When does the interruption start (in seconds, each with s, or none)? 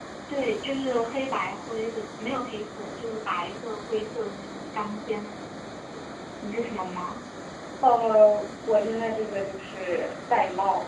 none